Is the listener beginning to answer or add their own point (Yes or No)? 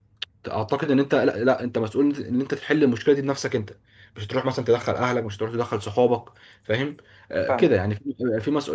No